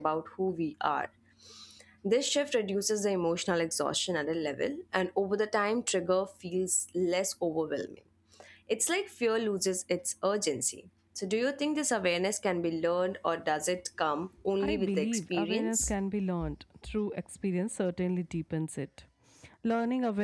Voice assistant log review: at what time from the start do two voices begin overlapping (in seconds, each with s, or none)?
14.6 s